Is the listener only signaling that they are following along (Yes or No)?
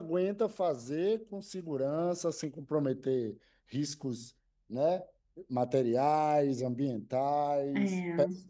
Yes